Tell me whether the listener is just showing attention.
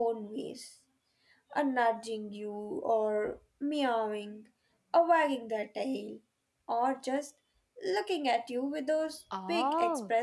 No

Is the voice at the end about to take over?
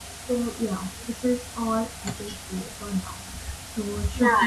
Yes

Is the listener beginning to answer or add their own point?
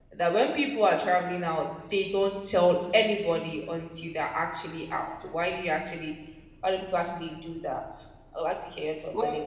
Yes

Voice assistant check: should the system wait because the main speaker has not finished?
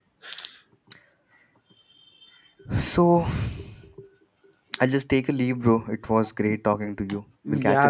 No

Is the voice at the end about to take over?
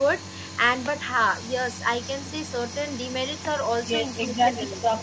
Yes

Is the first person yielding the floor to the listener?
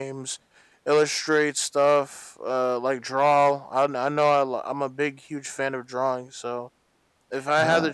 No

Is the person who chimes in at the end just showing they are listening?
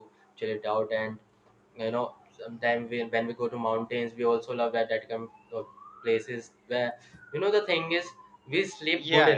No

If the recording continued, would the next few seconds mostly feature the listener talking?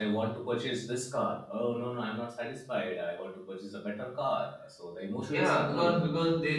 Yes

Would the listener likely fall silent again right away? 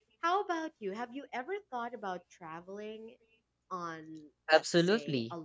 No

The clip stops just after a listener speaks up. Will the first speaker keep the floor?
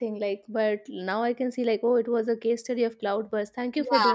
No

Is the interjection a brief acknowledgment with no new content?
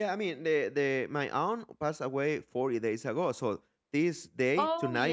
Yes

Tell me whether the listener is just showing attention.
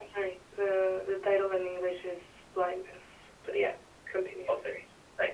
No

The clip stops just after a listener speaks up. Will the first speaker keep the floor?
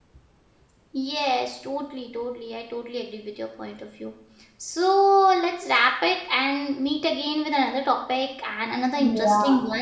No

